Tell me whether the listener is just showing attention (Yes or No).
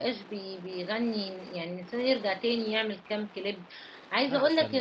Yes